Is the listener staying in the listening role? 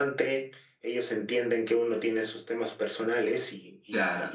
Yes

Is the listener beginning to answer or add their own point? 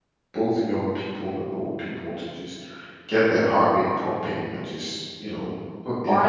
Yes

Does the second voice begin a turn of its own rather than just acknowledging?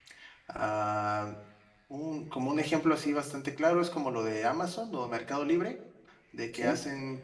No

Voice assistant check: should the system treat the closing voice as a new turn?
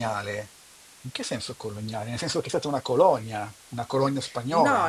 Yes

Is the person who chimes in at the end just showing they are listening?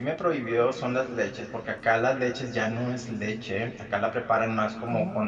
Yes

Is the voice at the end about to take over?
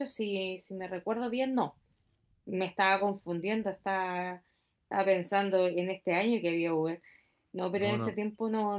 No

